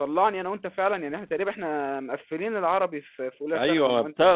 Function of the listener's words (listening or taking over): taking over